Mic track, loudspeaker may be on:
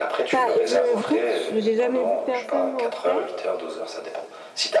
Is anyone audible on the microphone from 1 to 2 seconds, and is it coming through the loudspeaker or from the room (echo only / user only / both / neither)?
both